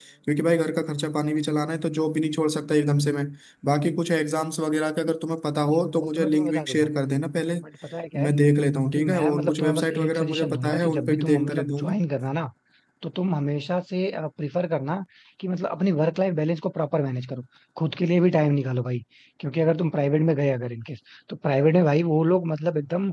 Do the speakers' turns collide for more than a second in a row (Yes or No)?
Yes